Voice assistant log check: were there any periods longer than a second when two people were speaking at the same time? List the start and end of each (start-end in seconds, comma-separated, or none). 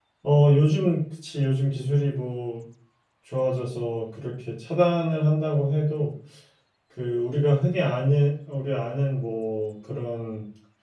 none